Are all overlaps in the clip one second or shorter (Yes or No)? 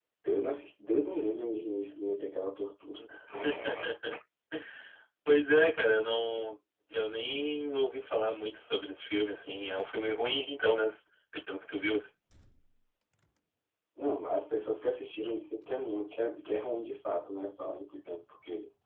Yes